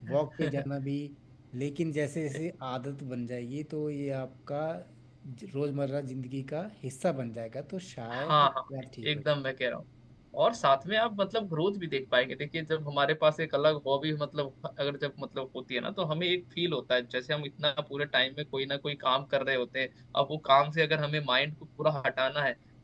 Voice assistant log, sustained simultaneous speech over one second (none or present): none